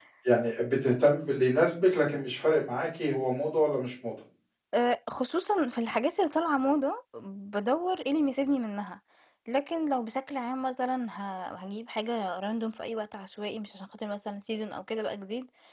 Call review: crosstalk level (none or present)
none